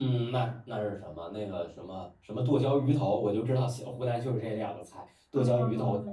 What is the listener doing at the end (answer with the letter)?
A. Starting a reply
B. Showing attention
A